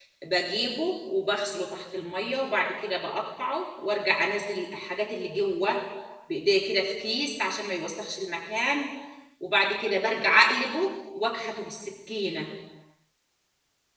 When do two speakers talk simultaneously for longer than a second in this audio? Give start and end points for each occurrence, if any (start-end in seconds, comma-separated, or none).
none